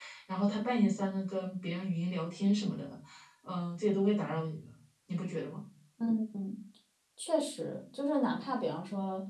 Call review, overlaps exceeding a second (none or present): none